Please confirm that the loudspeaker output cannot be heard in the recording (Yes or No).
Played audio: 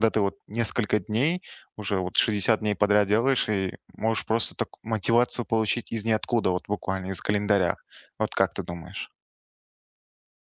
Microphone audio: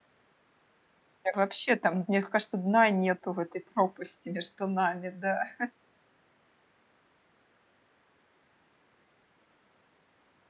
Yes